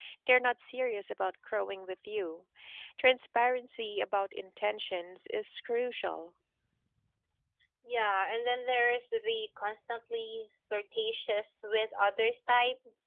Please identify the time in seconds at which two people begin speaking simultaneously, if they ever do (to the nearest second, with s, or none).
none